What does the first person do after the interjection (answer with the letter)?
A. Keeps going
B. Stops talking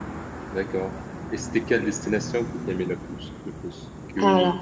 A